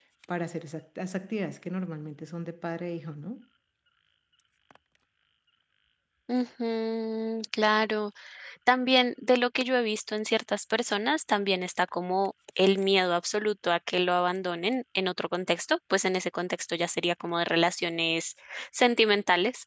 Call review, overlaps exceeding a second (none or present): none